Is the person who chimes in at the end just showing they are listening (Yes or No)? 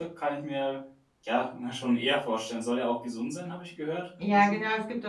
No